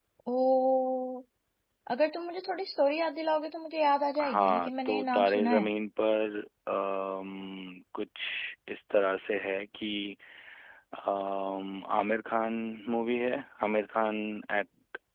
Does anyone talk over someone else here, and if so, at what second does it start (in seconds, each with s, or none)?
4.2 s